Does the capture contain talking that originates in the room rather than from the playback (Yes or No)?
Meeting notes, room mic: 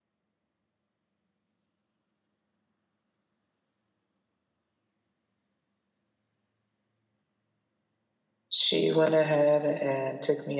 Yes